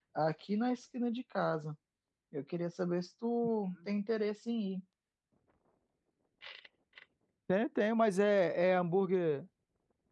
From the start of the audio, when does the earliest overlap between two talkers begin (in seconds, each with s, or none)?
none